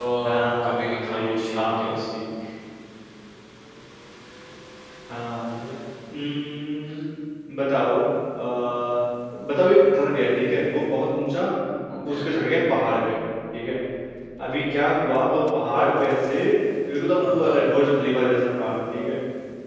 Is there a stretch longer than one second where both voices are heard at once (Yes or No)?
Yes